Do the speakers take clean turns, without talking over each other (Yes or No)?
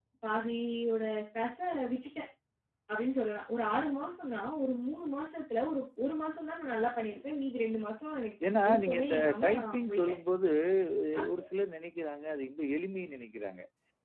No